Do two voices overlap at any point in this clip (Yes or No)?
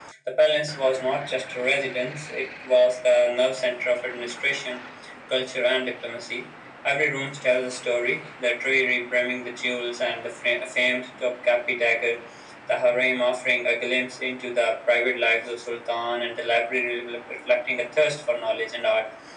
No